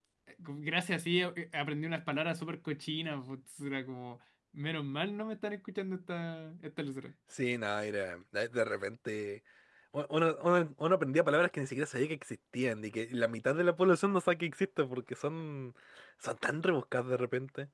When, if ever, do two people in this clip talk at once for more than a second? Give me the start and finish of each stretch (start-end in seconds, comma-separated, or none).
none